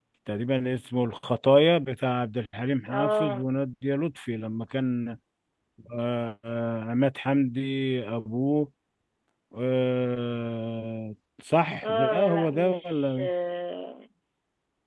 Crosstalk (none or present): present